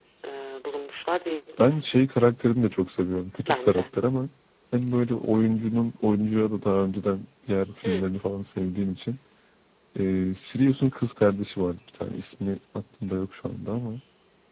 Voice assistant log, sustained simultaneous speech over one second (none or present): none